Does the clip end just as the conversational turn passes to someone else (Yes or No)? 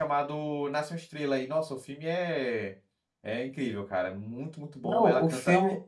Yes